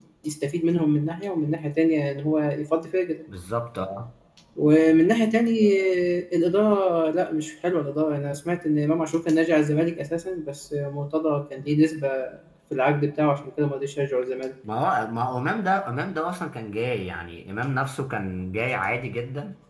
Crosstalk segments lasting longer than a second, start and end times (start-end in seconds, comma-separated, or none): none